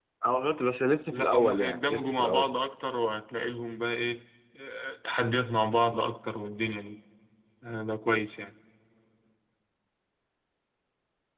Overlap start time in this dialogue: 1 s

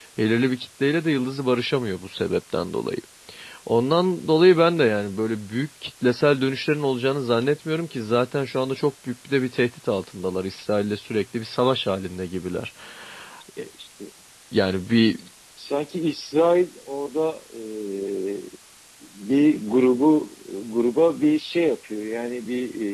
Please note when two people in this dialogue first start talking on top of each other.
none

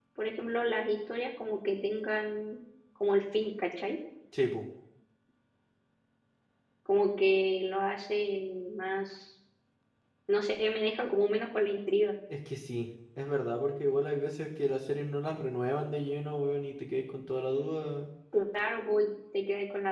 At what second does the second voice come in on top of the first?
none

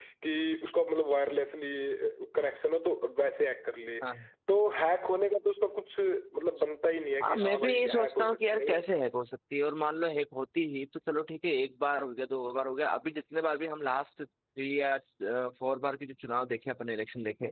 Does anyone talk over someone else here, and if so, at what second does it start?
7 s

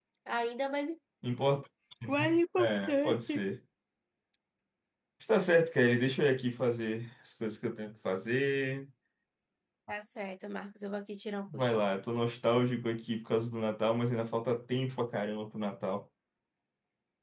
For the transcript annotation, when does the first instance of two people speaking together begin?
2 s

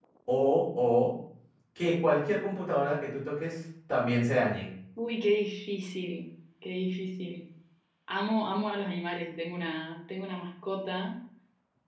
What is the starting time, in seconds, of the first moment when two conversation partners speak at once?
none

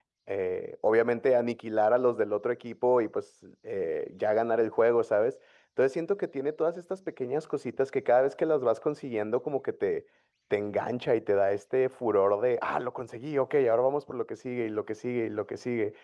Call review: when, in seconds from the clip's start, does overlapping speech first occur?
none

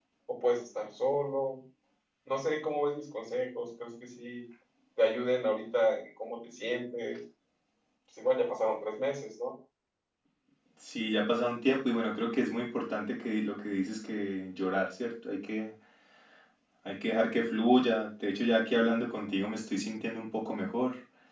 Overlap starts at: none

